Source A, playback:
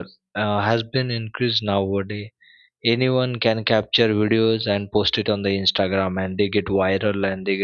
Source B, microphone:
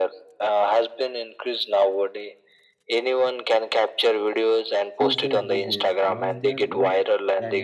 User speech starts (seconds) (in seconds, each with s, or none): 4.9 s